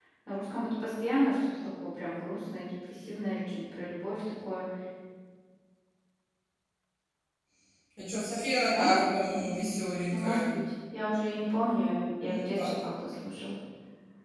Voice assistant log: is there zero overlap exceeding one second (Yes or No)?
Yes